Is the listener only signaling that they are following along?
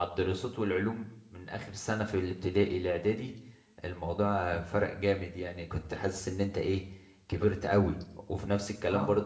Yes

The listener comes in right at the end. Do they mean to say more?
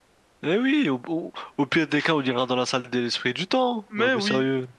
Yes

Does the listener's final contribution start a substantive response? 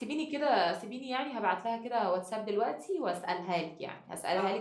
No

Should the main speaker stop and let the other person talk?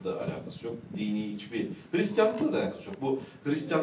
No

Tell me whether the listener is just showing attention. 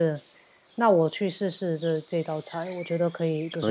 No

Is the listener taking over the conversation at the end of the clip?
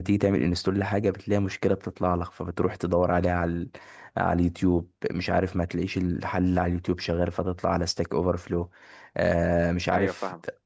No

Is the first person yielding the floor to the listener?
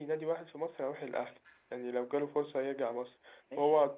No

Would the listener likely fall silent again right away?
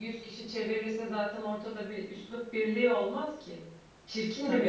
Yes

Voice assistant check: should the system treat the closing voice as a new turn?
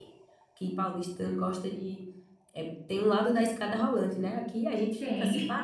No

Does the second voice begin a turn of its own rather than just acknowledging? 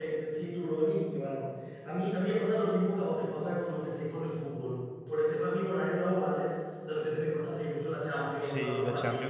Yes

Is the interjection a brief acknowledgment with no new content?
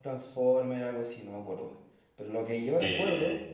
Yes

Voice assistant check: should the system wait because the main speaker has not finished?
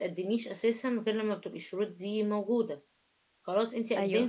Yes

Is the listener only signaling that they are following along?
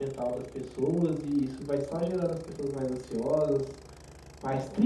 Yes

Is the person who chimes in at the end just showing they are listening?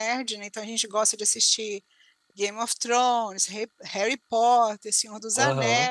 Yes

